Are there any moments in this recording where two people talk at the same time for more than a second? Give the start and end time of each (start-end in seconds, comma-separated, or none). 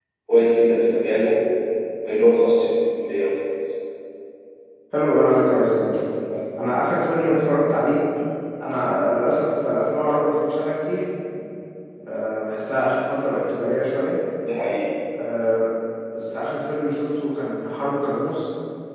none